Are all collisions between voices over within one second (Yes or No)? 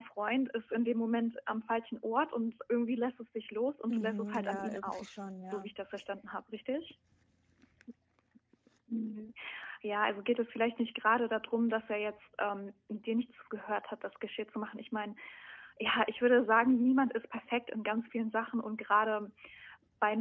No